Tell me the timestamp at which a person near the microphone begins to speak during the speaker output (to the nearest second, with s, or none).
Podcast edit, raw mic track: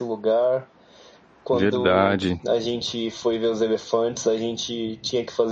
2 s